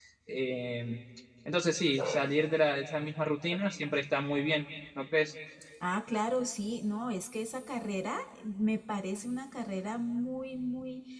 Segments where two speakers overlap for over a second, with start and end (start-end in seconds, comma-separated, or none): none